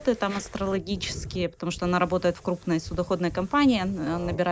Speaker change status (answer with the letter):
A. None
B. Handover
A